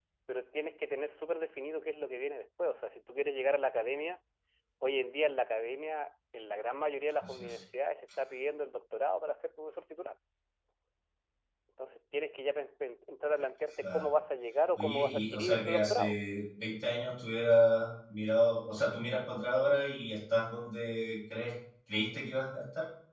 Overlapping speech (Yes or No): Yes